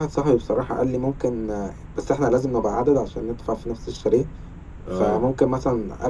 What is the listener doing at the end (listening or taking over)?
listening